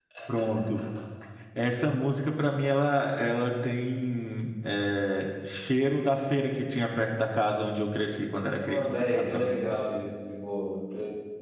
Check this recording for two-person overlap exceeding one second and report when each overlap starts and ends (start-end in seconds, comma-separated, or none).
8.6-9.8